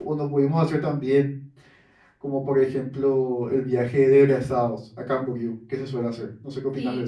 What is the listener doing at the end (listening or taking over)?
taking over